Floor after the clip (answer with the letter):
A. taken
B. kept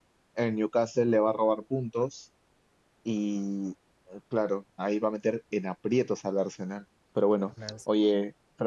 B